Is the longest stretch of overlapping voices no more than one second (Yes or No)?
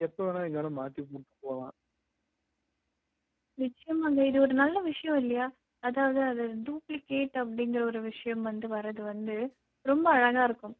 Yes